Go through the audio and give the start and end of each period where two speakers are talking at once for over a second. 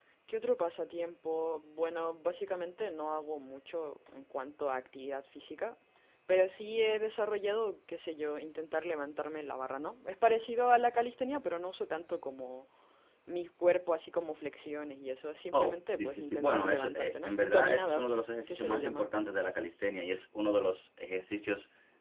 15.5-19.1

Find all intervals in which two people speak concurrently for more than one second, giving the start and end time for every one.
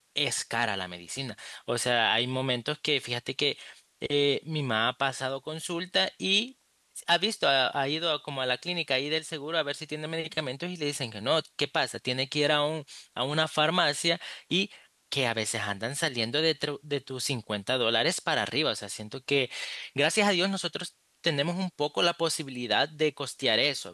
none

